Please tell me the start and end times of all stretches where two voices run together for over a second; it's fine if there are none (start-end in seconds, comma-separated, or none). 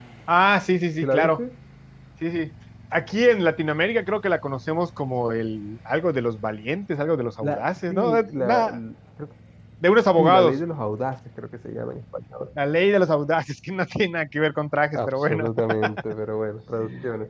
7.4-8.8